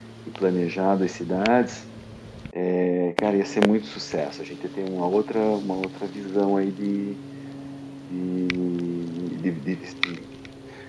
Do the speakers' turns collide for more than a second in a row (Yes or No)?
No